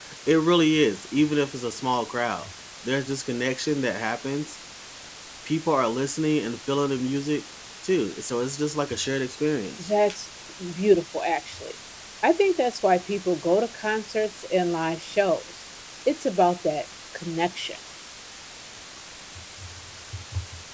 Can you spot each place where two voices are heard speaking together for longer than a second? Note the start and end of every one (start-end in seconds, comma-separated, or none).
none